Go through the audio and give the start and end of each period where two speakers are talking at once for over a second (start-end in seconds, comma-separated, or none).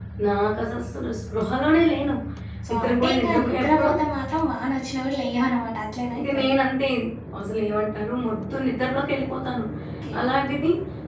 2.7-3.9